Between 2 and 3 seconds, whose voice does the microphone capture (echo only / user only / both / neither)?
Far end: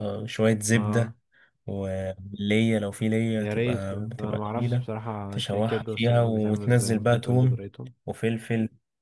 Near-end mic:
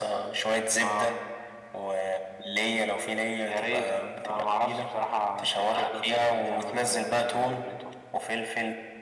echo only